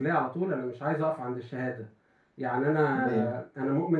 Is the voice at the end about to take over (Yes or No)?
No